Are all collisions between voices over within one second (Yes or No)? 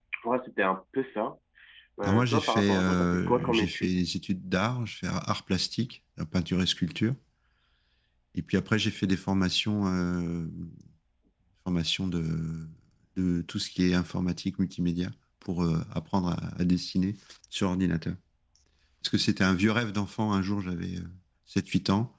No